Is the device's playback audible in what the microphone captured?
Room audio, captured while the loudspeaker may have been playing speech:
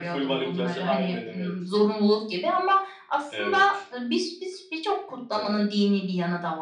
Yes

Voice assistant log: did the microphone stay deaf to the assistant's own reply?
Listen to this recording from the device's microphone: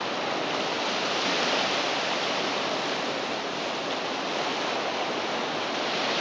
Yes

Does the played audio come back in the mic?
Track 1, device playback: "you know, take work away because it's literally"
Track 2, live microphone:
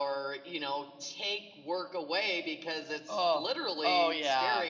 Yes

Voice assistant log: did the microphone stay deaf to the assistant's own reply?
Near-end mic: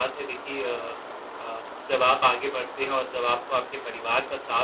Yes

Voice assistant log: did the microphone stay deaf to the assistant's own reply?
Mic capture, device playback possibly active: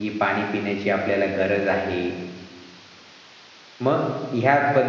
Yes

